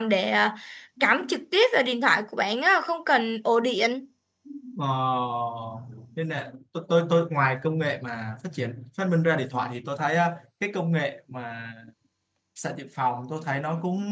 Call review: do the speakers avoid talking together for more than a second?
Yes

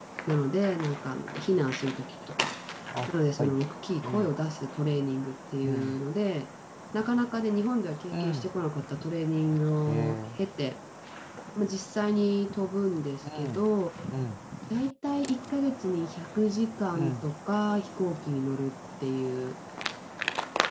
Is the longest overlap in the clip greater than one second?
No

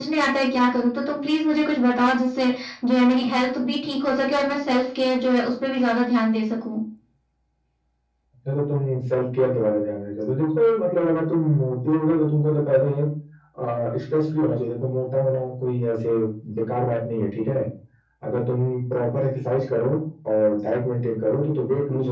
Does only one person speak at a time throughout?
Yes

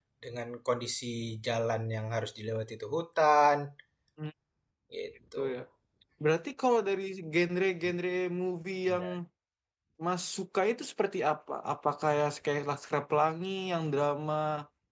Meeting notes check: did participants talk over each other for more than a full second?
No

